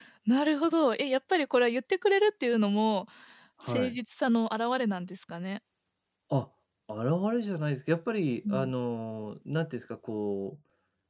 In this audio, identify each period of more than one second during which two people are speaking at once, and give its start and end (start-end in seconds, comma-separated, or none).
none